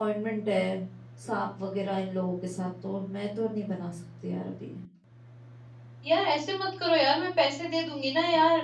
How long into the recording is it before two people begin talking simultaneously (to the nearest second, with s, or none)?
none